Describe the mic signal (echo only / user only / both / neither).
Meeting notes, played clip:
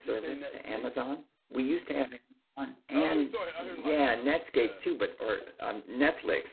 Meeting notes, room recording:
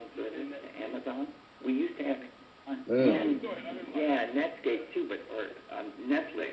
both